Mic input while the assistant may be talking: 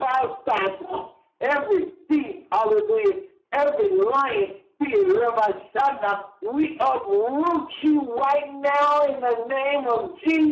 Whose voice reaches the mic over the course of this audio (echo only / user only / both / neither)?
echo only